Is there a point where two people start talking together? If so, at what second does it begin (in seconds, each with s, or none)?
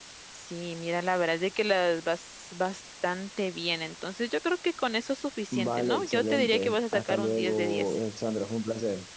5.5 s